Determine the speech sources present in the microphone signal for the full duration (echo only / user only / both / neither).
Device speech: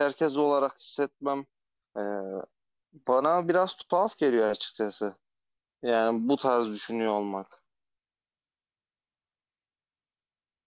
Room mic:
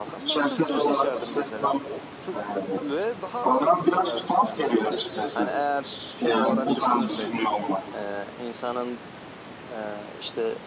both